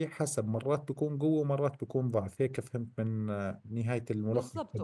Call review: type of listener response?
taking over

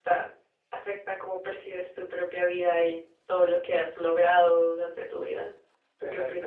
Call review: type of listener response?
taking over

